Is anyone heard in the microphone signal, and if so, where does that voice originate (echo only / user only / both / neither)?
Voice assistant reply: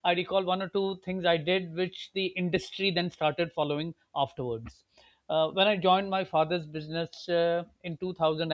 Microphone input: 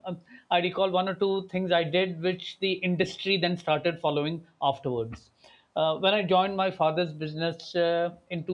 echo only